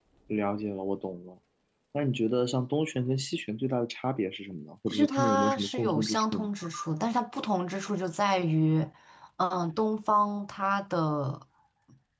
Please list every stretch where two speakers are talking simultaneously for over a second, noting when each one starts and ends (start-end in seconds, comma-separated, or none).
4.9-6.5